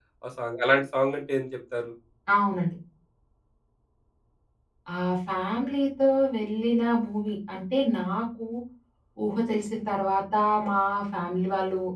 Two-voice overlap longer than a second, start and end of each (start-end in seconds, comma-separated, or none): none